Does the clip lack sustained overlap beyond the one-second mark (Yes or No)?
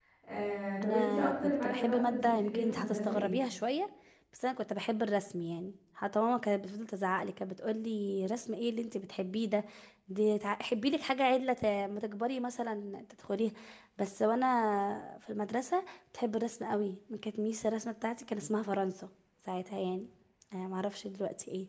No